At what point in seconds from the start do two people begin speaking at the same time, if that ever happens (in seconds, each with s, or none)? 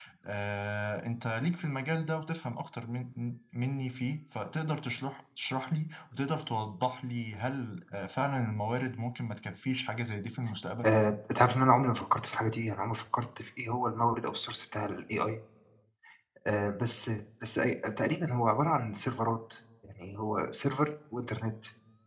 none